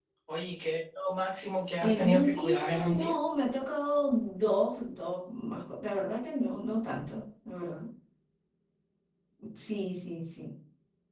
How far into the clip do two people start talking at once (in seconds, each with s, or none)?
1.8 s